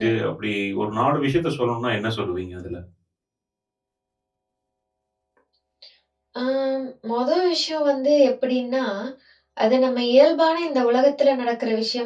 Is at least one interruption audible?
No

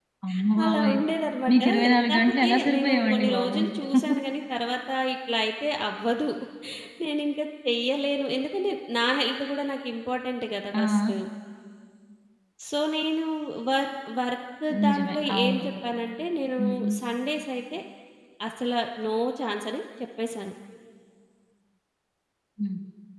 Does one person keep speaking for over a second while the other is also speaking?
Yes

